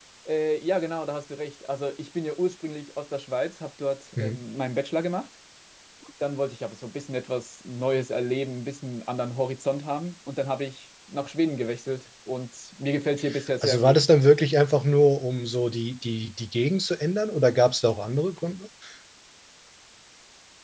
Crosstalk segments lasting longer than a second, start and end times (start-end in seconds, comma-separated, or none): none